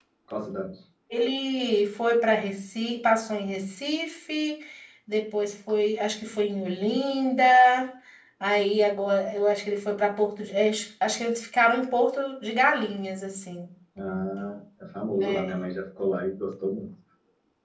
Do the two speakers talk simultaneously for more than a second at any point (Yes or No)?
No